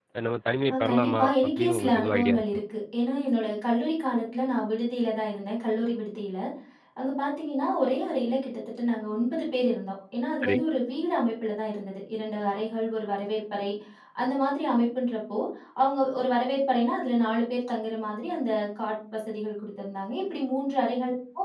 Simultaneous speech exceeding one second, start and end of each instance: 0.7-2.4

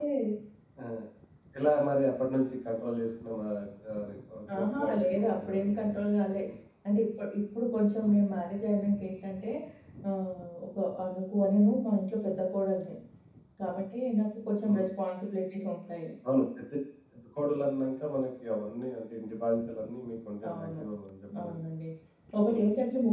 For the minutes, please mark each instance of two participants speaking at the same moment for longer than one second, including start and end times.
4.6-6.0

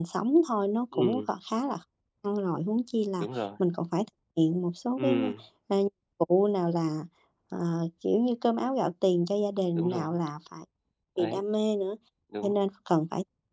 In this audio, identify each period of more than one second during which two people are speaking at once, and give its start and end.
none

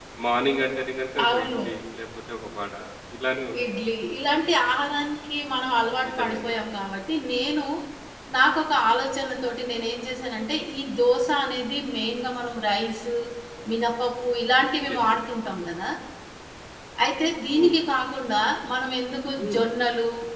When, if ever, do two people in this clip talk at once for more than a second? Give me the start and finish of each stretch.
none

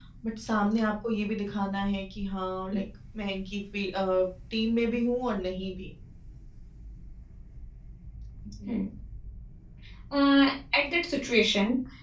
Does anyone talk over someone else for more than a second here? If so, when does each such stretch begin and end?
none

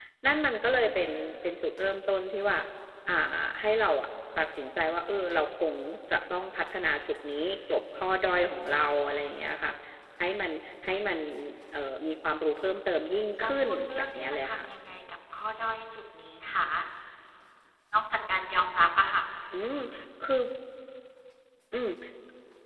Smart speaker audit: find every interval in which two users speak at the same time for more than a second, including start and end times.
13.4-14.7

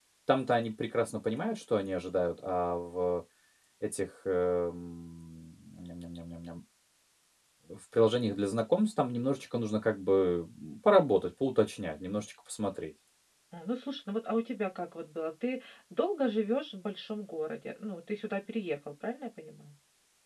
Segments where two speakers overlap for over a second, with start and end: none

